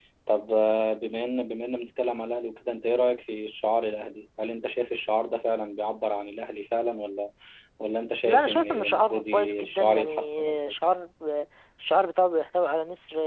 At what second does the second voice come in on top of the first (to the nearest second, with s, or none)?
8 s